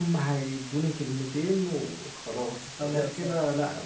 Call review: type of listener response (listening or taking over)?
listening